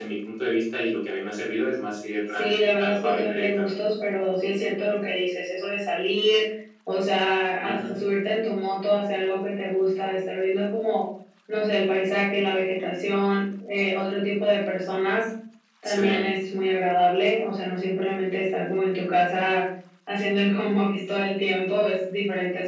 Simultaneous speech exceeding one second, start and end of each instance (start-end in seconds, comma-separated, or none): 2.4-3.7